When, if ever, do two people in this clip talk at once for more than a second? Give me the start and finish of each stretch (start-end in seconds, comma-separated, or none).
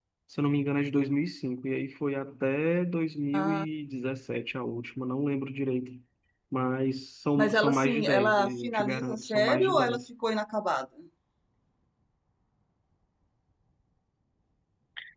7.4-10.0